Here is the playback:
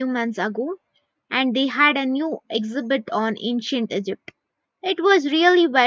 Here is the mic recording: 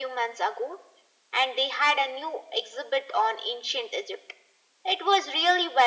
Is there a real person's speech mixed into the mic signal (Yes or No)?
No